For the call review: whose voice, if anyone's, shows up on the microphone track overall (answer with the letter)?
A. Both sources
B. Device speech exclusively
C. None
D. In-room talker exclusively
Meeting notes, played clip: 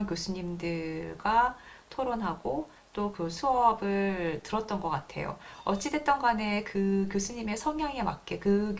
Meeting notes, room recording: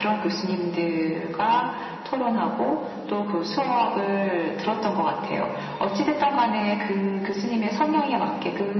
B